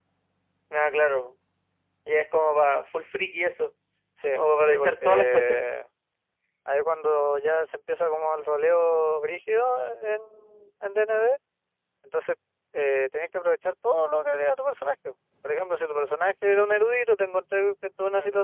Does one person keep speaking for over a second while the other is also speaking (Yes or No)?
Yes